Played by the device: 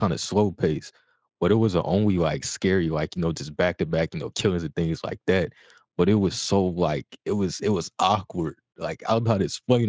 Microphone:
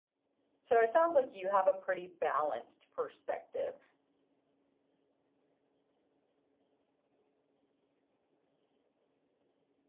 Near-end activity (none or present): present